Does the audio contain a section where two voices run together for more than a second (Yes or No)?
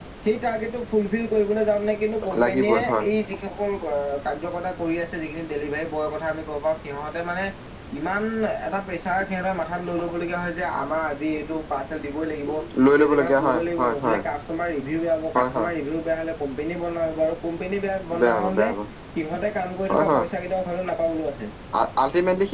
Yes